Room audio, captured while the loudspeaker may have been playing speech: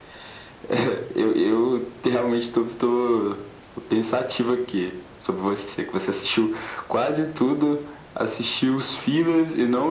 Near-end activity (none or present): none